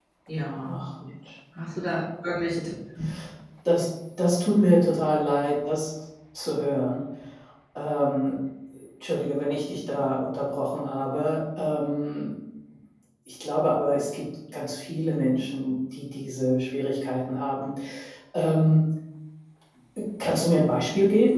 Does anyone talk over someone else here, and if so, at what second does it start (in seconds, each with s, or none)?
none